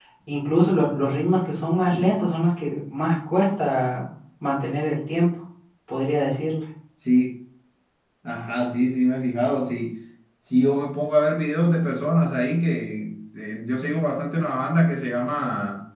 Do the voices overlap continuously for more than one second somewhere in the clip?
No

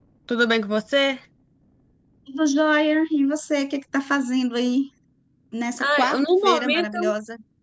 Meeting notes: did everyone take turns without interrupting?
No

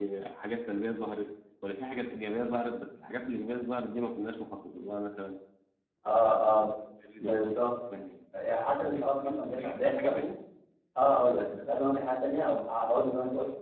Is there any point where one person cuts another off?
Yes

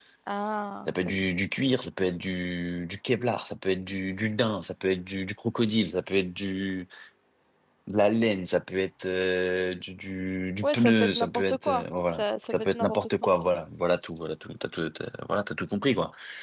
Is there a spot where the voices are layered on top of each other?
Yes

